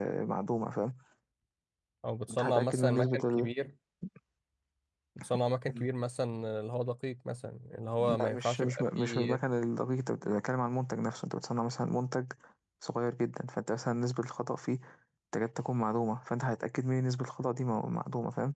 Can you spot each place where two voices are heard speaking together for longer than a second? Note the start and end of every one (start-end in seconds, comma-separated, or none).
2.3-3.5, 8.0-9.4